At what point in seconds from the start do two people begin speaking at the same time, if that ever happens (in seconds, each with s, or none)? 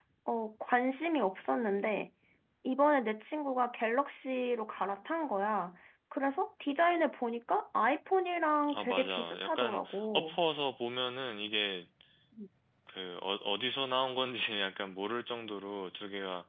8.6 s